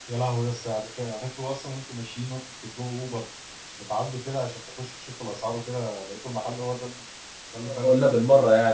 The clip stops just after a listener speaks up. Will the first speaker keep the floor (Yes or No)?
No